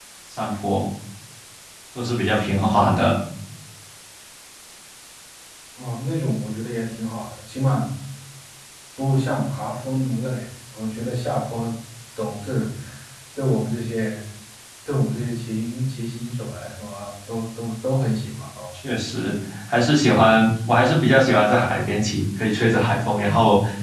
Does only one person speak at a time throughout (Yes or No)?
Yes